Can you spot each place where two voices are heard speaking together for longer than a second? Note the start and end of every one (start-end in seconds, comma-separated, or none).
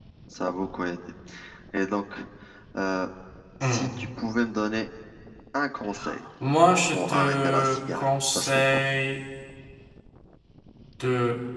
6.9-8.8